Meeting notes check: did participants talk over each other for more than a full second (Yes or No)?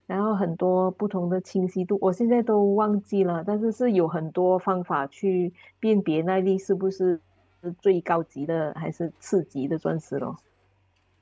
No